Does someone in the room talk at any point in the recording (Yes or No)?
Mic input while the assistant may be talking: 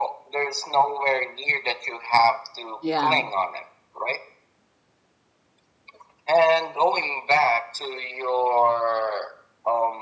Yes